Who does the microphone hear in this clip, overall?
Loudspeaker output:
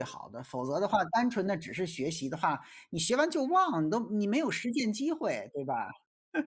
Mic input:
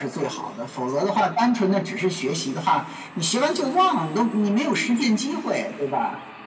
echo only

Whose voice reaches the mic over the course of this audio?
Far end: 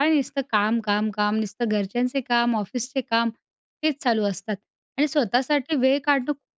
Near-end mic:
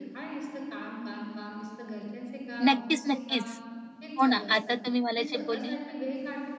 both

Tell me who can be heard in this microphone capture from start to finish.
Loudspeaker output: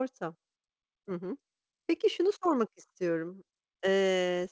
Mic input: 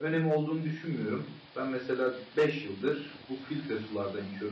user only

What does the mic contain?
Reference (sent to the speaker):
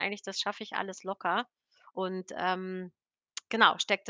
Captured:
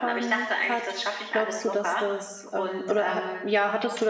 both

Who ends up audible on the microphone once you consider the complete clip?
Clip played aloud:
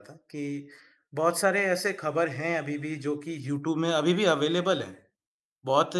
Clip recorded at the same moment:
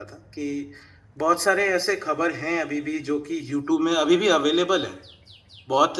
echo only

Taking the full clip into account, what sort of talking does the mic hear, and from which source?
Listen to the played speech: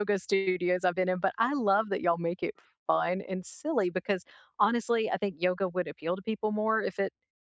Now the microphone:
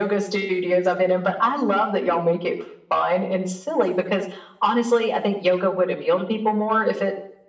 echo only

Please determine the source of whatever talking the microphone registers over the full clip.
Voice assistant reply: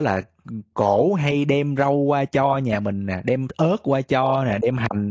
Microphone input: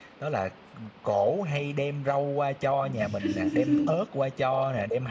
both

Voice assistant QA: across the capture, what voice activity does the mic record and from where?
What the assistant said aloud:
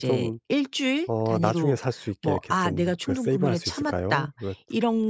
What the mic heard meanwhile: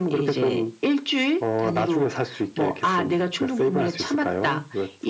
echo only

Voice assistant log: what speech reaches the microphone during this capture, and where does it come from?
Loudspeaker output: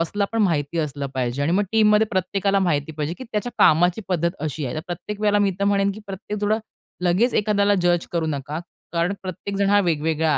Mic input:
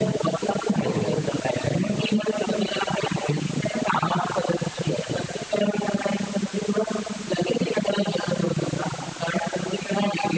both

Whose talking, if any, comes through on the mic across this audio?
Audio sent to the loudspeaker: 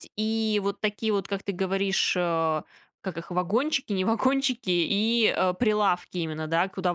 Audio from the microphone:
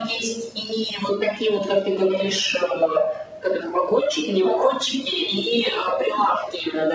echo only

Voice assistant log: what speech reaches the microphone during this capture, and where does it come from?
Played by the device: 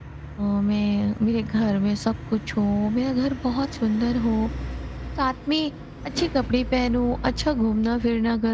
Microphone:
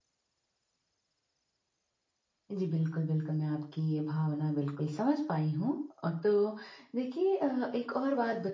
user only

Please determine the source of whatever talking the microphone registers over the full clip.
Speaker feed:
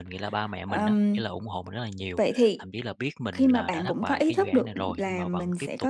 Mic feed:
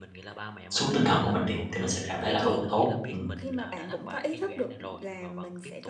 both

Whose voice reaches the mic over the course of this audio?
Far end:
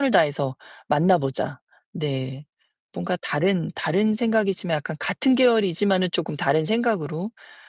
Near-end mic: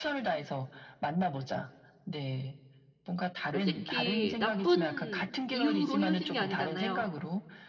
both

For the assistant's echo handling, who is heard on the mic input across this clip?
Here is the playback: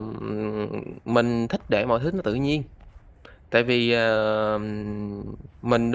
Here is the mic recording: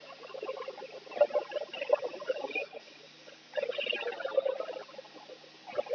echo only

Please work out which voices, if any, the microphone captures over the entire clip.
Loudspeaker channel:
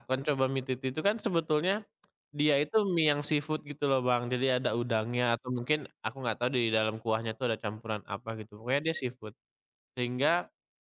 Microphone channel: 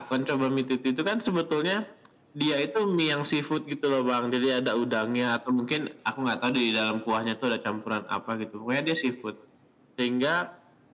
echo only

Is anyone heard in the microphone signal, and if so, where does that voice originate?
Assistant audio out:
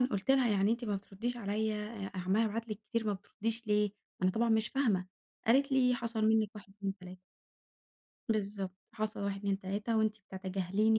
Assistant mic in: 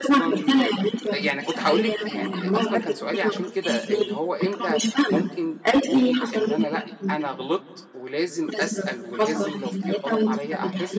both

